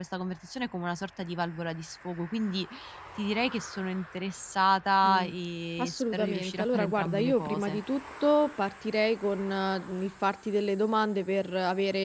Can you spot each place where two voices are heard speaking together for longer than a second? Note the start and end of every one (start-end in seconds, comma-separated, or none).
5.8-7.8